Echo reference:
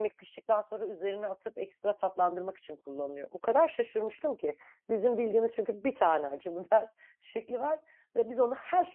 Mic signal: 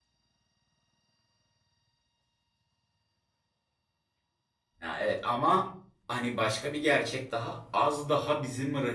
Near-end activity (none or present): present